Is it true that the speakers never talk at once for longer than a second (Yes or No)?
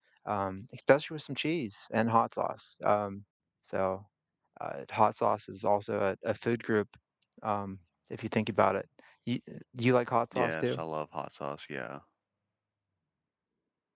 Yes